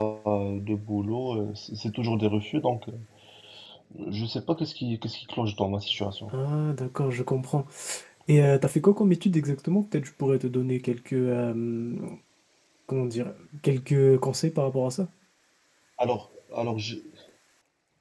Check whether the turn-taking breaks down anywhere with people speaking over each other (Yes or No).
No